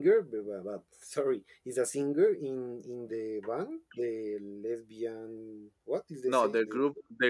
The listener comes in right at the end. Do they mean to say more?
Yes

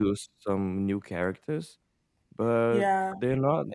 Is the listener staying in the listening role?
No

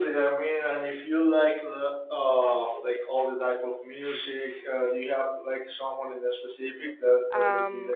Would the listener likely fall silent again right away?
No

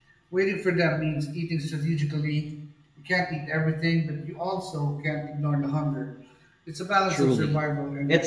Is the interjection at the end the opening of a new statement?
Yes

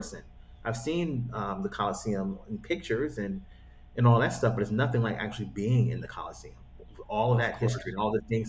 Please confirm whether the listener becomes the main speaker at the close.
No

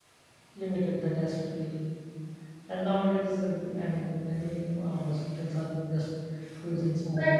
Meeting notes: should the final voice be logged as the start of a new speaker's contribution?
Yes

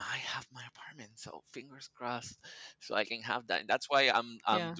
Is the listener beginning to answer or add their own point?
No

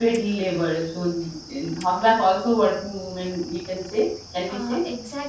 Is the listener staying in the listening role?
No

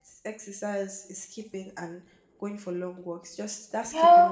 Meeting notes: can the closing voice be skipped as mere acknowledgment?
No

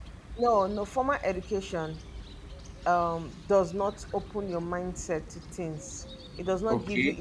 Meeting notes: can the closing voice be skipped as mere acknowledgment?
Yes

